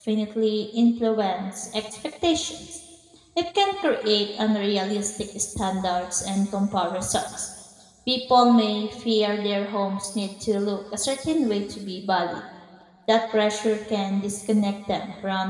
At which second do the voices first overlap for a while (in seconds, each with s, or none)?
none